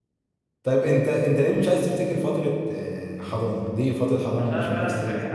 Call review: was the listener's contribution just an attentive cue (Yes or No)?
No